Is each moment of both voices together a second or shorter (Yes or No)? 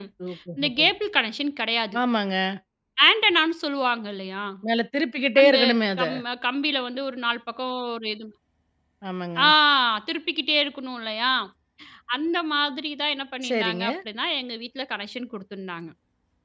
Yes